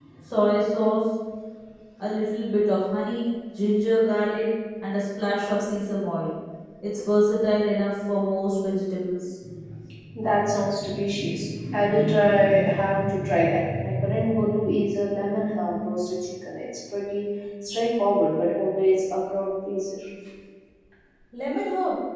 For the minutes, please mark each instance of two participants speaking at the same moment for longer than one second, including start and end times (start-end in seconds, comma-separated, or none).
none